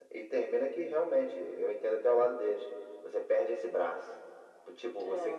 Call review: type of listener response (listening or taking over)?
listening